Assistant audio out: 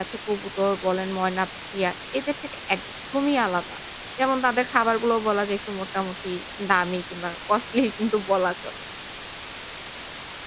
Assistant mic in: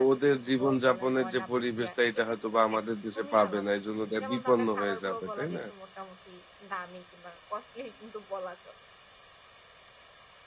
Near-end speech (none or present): present